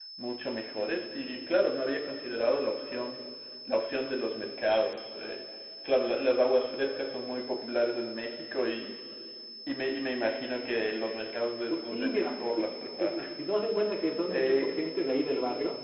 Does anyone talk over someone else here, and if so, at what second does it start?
11.7 s

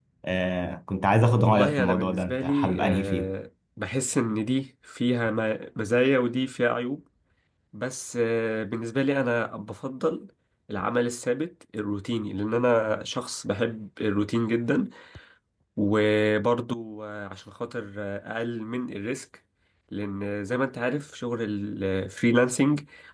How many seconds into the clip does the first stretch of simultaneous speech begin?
1.4 s

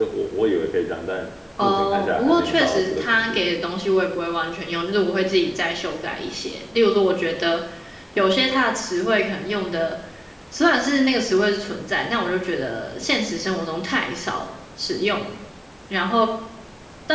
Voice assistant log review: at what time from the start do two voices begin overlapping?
1.6 s

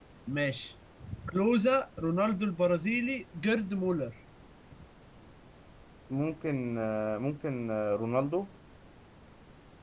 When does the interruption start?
none

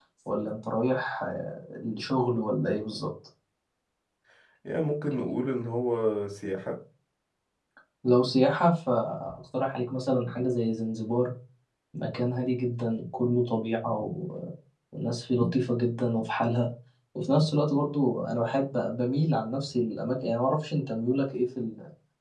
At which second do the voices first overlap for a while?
none

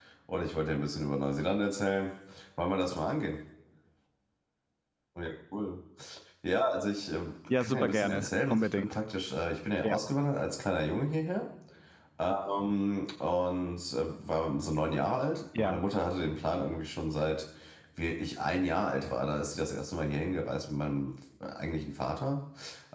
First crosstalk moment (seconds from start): 7.5 s

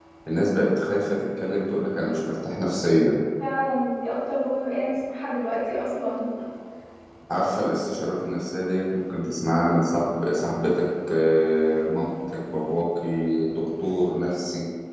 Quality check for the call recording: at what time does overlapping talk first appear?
none

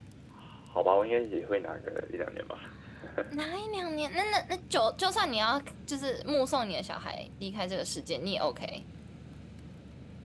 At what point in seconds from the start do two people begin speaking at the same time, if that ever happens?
none

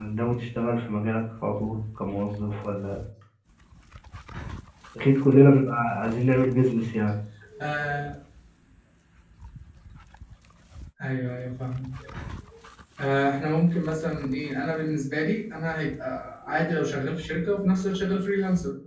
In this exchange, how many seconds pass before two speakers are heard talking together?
none

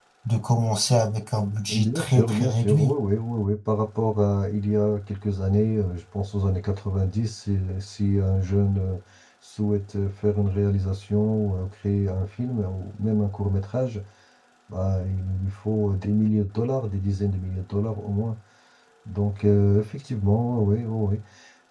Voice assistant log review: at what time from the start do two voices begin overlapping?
1.4 s

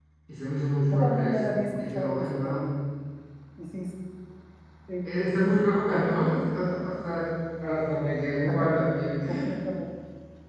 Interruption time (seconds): 0.9 s

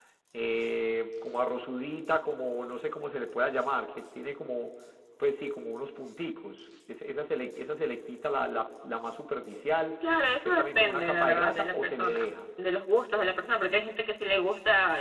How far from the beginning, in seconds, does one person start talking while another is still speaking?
10.4 s

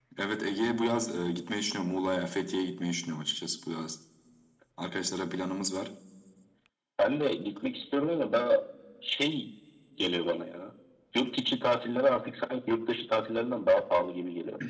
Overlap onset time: none

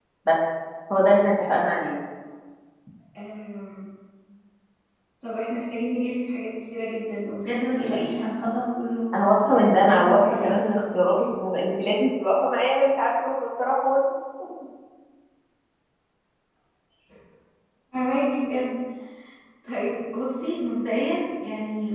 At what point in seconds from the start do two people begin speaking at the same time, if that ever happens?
9.5 s

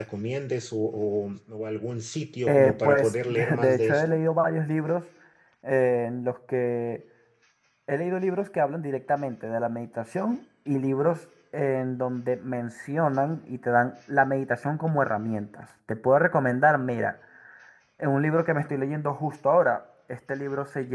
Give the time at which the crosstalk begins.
2.5 s

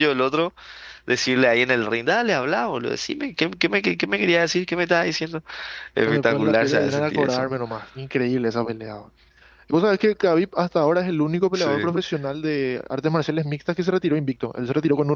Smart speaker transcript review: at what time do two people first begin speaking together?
6.1 s

